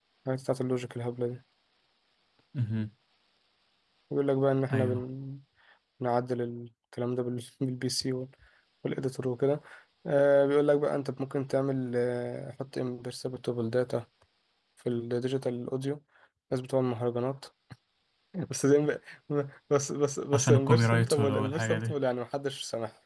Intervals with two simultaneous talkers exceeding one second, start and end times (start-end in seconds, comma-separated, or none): 20.3-21.9